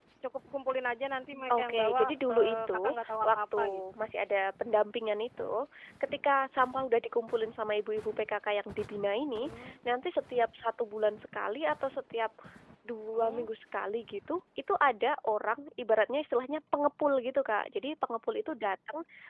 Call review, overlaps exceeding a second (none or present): present